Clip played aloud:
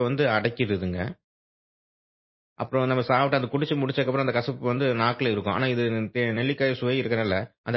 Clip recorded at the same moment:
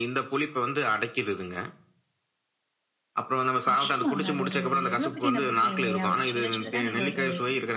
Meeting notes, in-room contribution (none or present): present